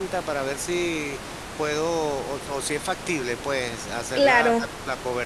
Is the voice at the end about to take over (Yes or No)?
No